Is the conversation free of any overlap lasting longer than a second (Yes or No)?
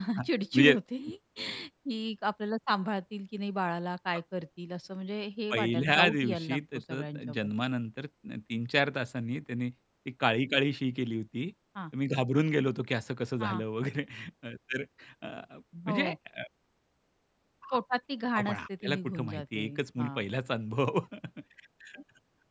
No